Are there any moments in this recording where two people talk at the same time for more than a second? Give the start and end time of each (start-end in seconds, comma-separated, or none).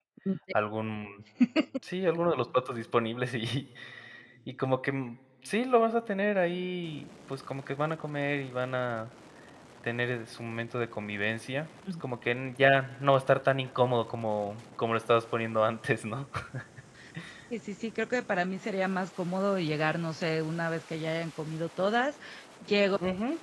none